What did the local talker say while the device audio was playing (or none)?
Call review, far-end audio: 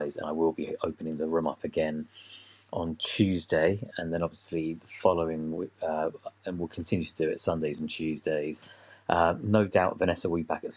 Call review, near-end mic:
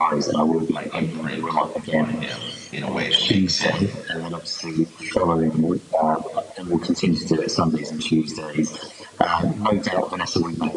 my imprint on him in a way that makes him